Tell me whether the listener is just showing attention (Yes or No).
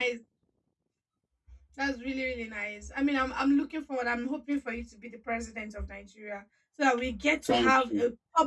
Yes